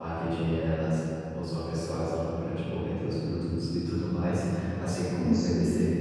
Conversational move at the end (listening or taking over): listening